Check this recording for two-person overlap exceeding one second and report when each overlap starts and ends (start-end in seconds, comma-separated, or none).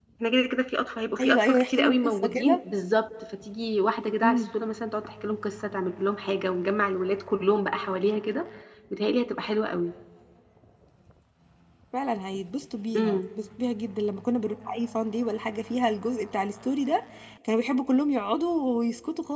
1.2-2.6